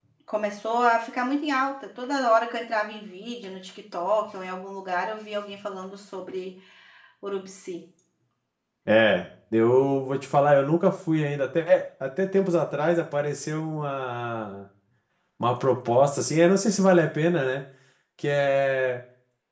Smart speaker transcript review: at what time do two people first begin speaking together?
none

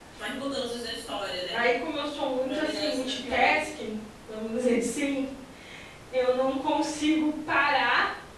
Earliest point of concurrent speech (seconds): 2.5 s

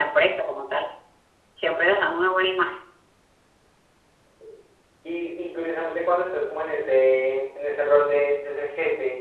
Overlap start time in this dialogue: none

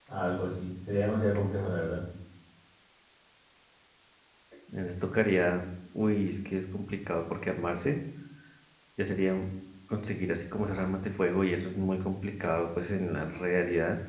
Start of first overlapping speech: none

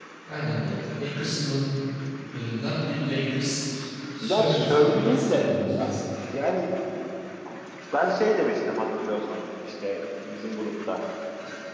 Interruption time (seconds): 4.2 s

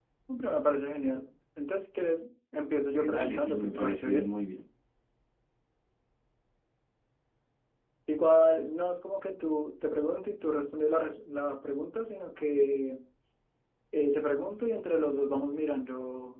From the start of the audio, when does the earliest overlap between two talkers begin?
2.9 s

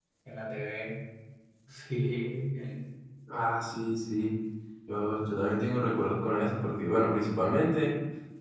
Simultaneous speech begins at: none

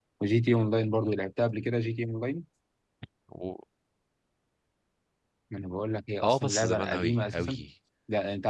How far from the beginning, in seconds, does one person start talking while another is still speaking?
6.2 s

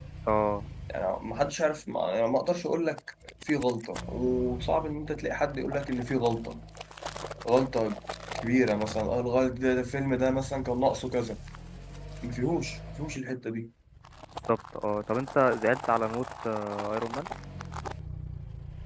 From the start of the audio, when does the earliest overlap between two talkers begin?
none

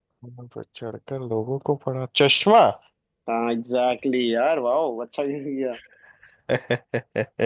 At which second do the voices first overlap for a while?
none

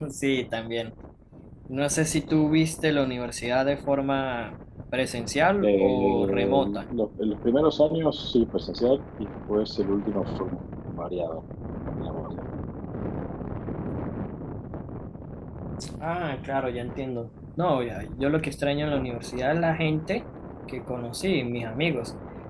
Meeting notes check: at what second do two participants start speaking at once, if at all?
5.6 s

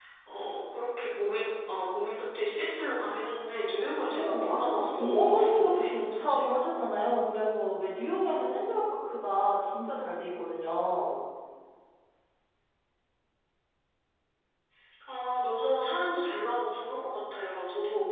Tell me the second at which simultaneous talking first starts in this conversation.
4.1 s

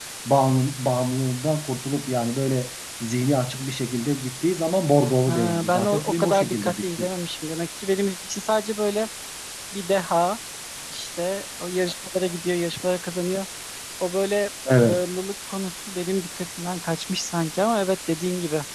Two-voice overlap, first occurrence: 5.3 s

